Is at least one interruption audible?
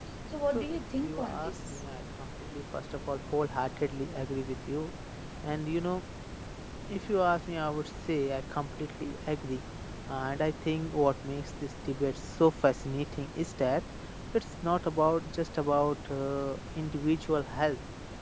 Yes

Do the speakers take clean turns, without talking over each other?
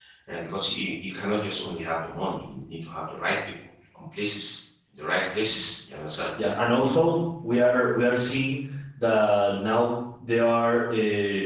Yes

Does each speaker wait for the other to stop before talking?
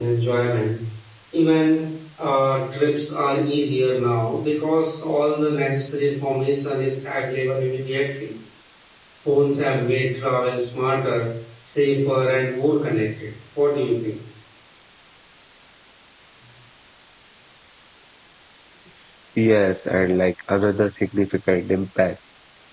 Yes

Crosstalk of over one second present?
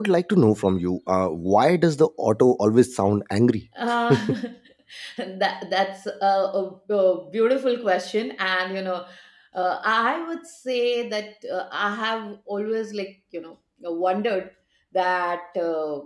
No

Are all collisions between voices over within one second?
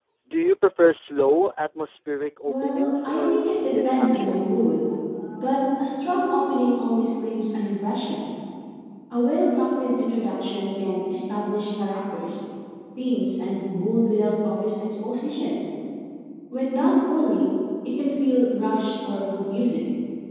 No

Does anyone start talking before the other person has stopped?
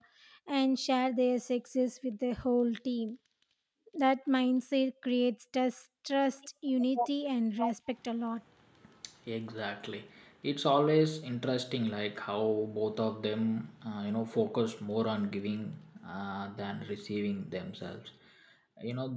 No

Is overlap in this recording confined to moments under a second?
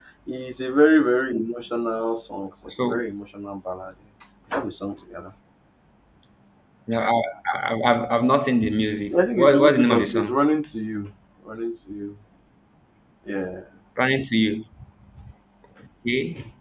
No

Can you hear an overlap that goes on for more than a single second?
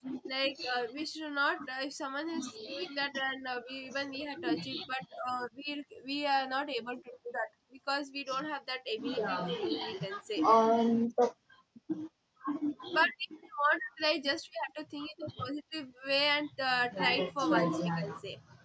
Yes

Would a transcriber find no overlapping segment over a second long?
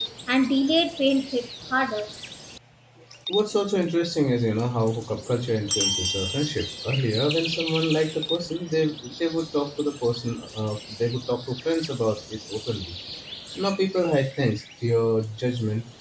Yes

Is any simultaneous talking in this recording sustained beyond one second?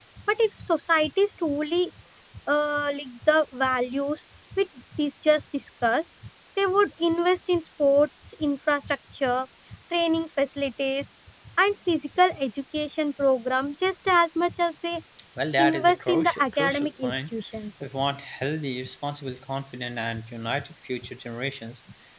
Yes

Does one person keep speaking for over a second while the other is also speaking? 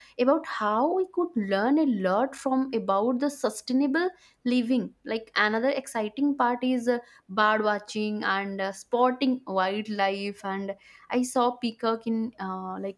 No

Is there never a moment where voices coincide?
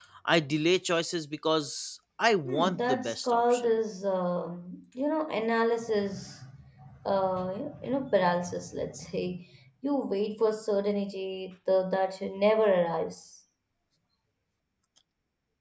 No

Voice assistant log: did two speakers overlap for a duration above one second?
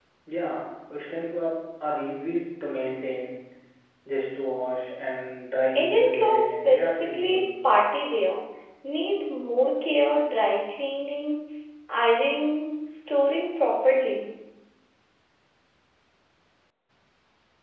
Yes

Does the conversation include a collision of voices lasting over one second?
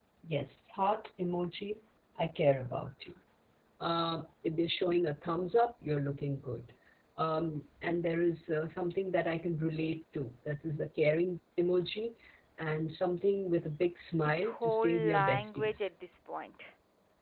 Yes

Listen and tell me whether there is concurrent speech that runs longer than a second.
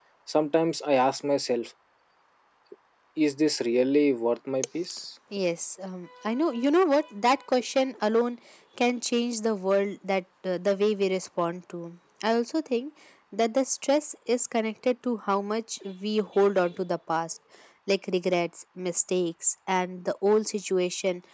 No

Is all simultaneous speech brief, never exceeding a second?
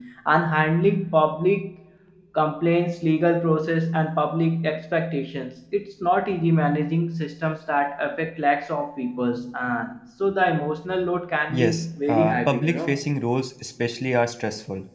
No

